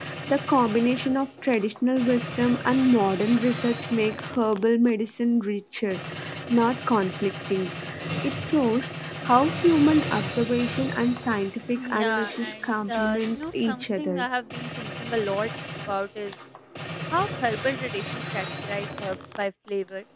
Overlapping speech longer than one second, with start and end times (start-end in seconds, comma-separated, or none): 11.8-14.2